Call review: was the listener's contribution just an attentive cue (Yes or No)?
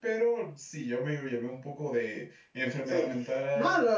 No